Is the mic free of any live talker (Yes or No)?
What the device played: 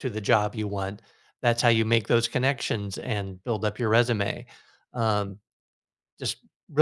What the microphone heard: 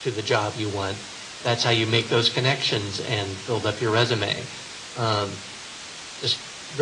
Yes